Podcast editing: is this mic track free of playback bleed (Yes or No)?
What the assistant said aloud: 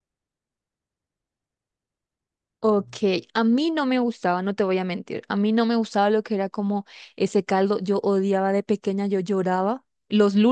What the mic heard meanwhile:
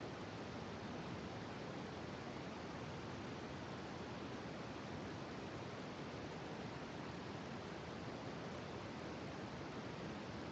Yes